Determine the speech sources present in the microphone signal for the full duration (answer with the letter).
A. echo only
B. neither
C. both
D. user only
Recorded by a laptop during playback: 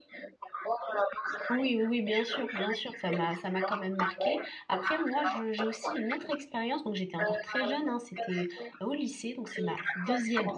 C